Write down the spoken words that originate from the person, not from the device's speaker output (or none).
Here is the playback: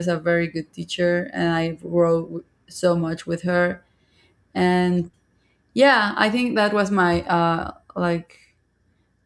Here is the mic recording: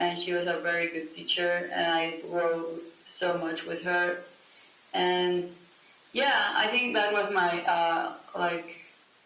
none